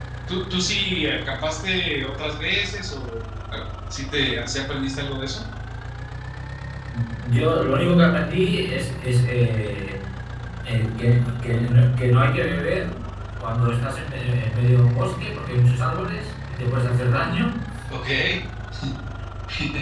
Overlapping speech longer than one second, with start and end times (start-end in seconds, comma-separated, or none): none